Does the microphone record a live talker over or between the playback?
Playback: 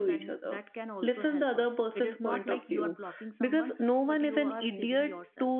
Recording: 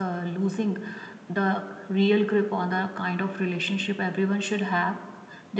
Yes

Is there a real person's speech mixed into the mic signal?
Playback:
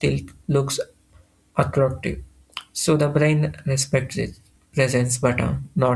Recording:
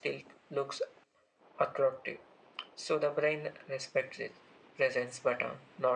No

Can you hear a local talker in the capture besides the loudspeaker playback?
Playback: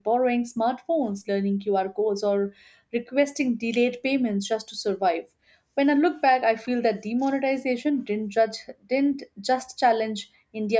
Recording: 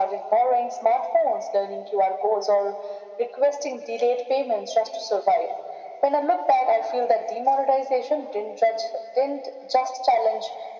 No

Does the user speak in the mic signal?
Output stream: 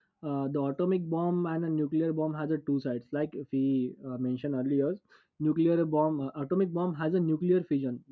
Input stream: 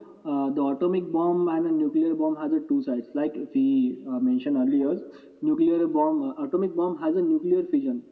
No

